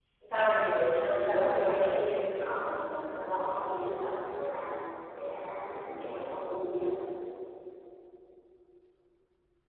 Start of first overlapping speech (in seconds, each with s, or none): 1.1 s